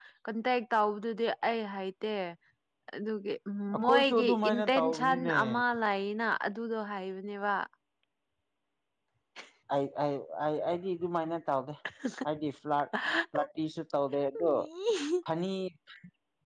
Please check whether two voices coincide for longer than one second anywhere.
Yes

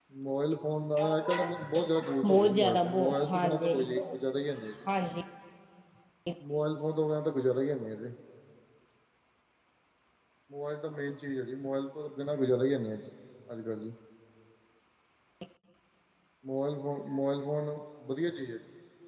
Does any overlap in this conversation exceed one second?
Yes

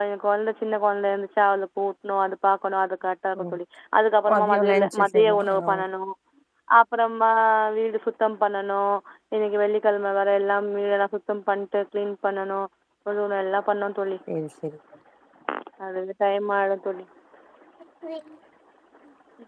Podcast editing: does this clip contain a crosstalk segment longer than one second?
Yes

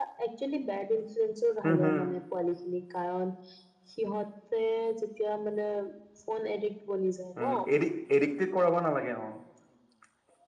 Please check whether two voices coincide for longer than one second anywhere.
No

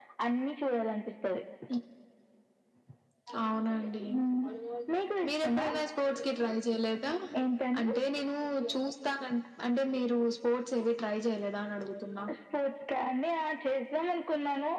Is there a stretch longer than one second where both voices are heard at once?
No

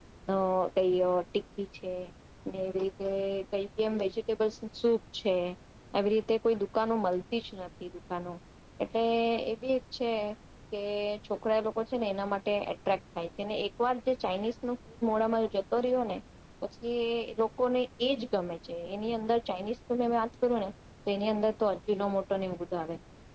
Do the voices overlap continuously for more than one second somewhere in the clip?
No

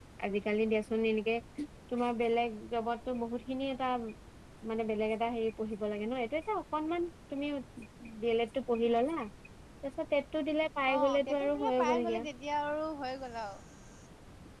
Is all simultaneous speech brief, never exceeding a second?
No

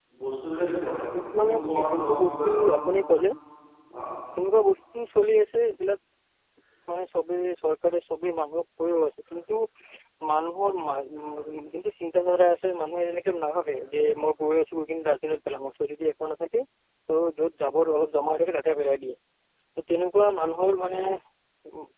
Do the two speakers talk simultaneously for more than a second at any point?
Yes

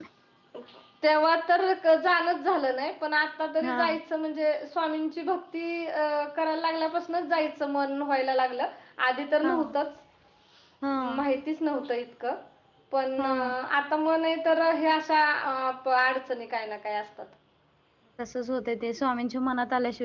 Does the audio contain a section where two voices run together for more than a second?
No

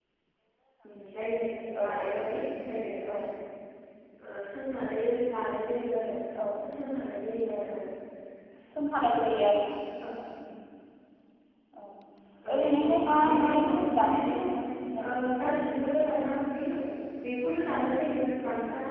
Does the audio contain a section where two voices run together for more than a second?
Yes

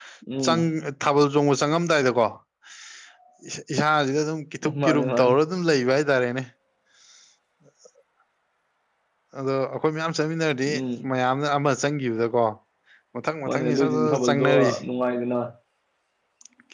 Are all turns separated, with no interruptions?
No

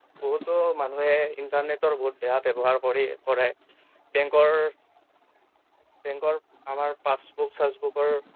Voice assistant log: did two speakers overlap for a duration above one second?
No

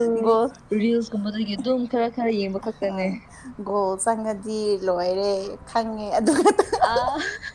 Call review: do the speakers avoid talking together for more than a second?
Yes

